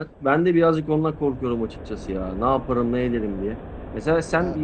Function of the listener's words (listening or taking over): listening